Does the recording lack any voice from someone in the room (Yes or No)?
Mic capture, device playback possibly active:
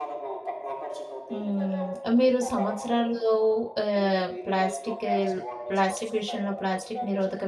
No